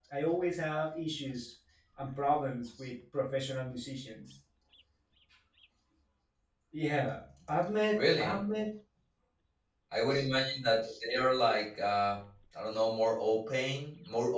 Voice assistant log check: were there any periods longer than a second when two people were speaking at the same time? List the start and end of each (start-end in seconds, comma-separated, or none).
none